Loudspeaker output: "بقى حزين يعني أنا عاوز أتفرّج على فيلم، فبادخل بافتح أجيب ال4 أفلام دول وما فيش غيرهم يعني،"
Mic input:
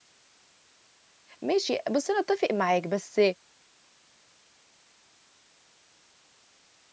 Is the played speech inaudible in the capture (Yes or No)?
Yes